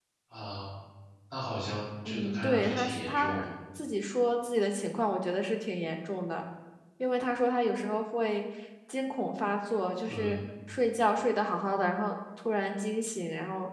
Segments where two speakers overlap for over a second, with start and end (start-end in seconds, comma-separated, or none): 2.0-3.5